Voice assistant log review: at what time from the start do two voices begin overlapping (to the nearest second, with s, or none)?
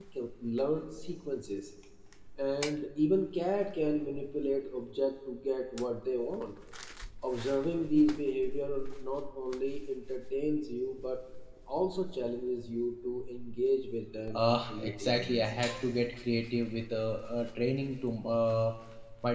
14 s